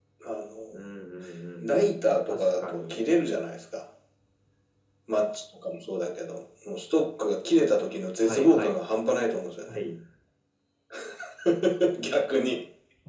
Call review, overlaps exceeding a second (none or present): present